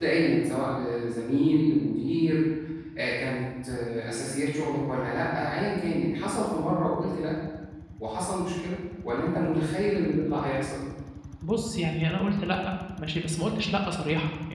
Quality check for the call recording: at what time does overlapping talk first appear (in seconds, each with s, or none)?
none